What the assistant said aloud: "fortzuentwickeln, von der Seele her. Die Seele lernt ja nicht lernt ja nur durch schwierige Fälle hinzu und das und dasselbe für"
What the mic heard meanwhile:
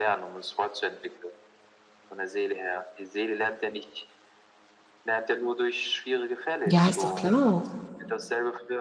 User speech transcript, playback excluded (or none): Ja, ist doch klar.